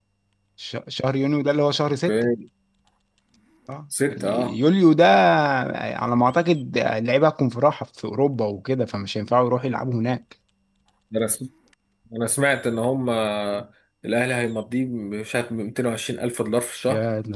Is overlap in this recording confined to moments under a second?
Yes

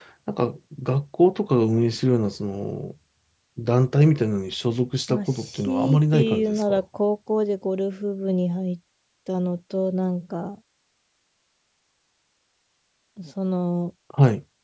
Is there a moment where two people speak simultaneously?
Yes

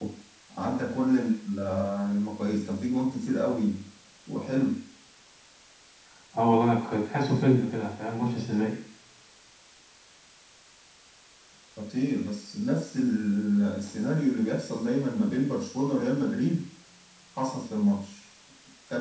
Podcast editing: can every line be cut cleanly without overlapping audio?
Yes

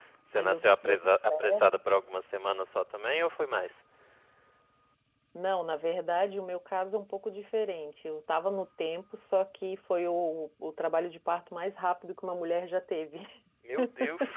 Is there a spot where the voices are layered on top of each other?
Yes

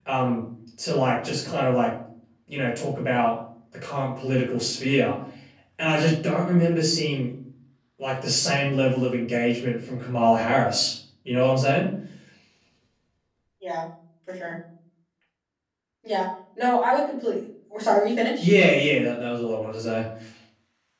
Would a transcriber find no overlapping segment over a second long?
Yes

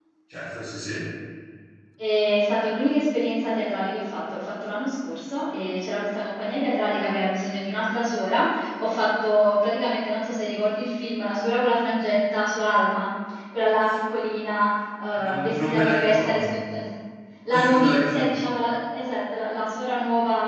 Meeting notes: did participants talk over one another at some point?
Yes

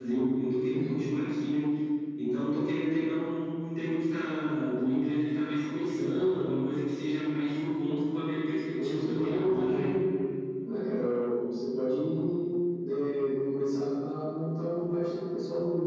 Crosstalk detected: Yes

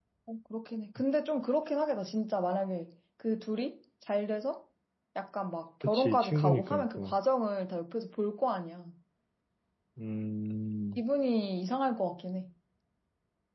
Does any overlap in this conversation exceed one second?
Yes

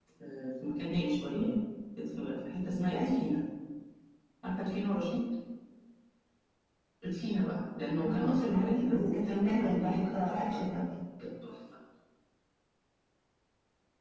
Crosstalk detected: Yes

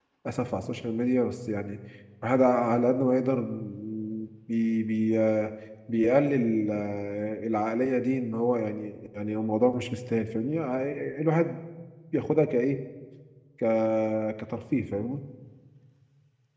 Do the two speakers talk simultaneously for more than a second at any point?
No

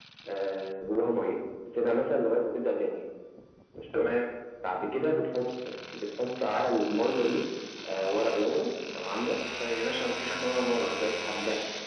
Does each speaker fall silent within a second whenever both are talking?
Yes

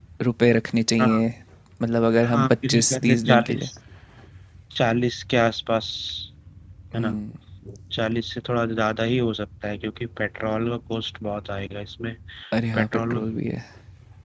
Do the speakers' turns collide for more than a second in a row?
Yes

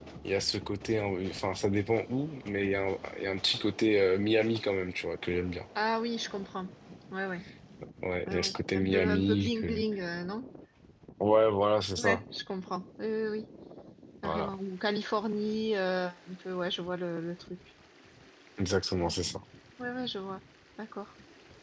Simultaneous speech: Yes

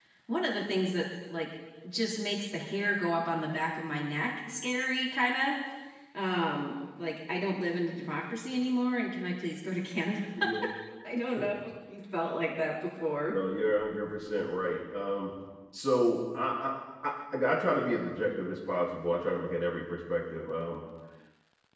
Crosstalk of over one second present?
No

